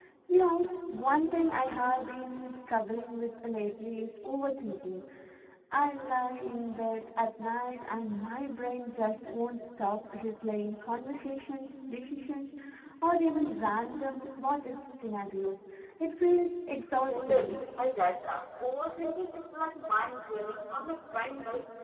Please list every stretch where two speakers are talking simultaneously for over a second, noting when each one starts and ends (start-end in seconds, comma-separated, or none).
none